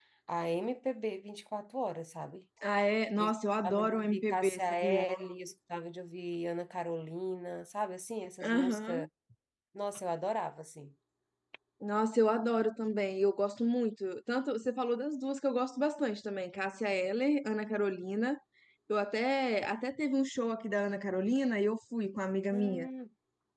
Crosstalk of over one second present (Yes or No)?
Yes